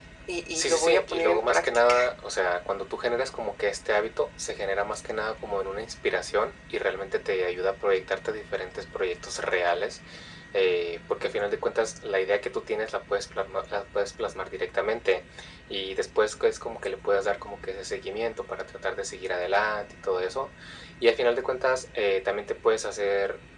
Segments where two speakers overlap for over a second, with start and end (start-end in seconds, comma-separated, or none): 0.6-2.0